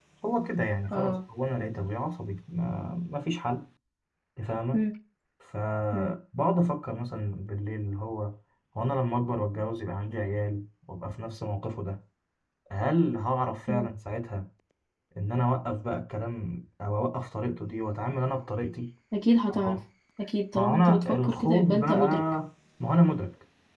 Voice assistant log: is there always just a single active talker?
No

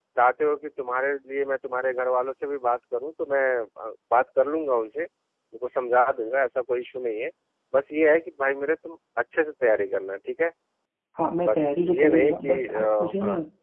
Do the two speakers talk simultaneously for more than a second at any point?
Yes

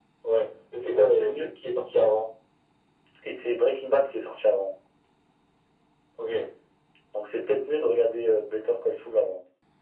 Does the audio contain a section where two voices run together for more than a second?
No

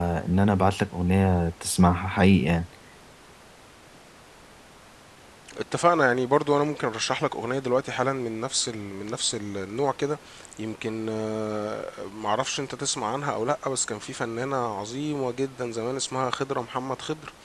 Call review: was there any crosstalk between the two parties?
No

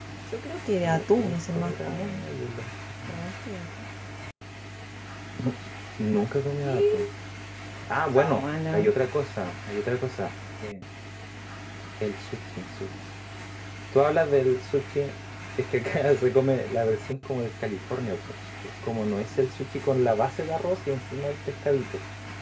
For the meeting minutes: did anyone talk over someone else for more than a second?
Yes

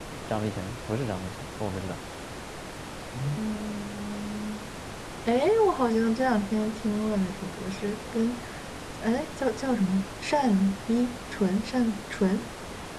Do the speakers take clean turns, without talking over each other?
Yes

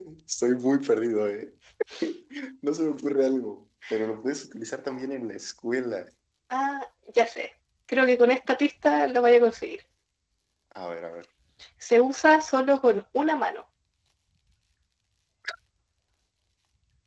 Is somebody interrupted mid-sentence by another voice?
No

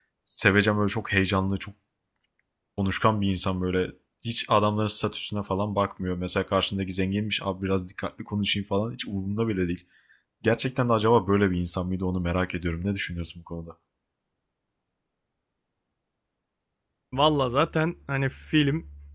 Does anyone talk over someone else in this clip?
No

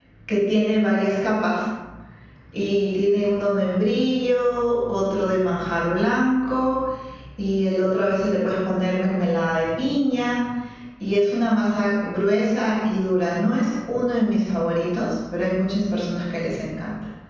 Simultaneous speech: No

